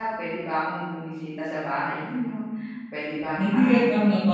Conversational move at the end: taking over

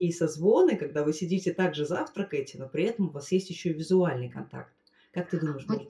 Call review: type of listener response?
taking over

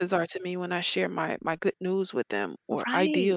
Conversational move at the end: taking over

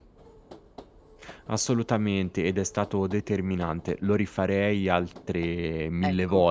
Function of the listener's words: listening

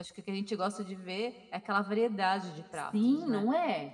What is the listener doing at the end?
taking over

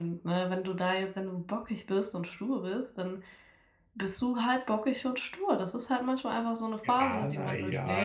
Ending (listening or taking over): taking over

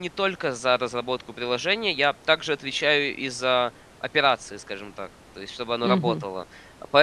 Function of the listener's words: listening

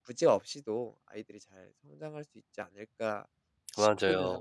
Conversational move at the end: taking over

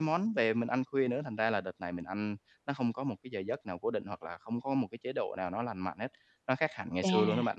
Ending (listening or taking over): taking over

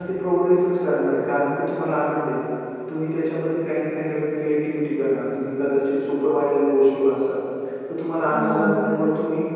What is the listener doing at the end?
listening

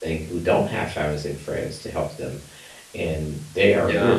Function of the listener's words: listening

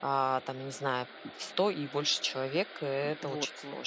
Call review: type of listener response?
taking over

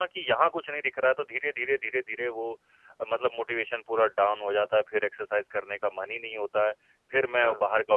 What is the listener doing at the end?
listening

